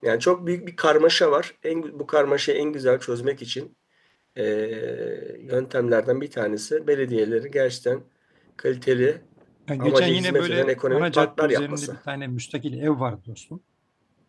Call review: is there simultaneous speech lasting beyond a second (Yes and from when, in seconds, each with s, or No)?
Yes, from 9.8 s